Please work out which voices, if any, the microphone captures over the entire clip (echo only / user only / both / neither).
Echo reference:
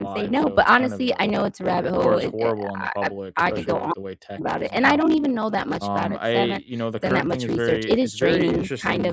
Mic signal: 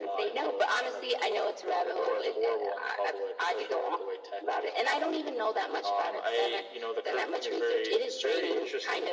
echo only